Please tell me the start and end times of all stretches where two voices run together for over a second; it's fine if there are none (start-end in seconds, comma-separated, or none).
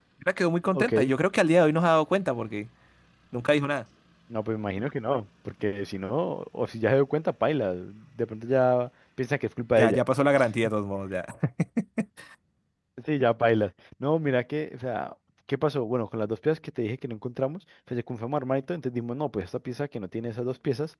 none